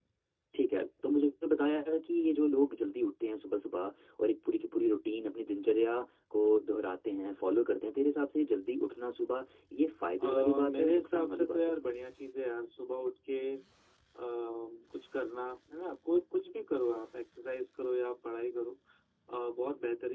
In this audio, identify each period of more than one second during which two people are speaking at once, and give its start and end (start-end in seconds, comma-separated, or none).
10.2-11.8